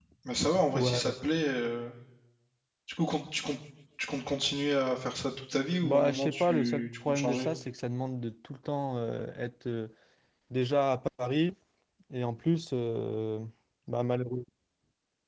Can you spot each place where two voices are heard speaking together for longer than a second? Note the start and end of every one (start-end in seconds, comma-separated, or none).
5.8-7.5